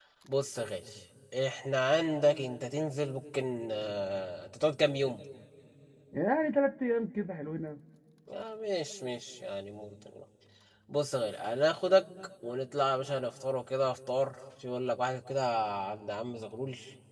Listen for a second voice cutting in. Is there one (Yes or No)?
No